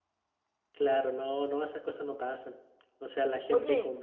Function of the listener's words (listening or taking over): listening